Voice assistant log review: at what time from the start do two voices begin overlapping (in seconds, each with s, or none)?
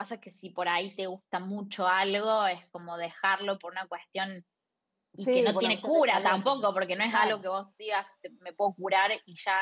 5.2 s